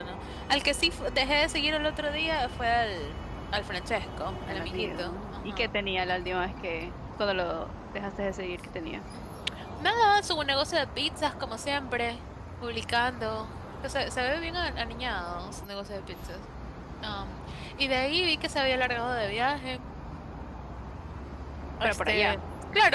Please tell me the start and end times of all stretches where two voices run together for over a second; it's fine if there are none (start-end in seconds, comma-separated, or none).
4.5-5.7